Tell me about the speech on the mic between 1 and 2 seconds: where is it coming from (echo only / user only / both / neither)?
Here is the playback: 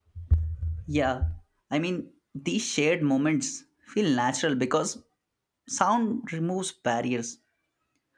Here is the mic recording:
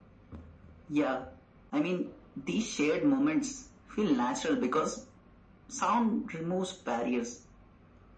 echo only